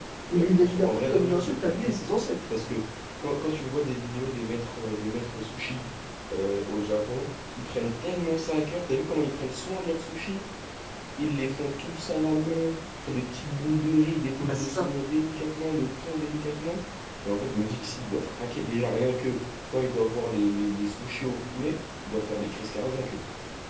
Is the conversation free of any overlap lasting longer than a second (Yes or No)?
No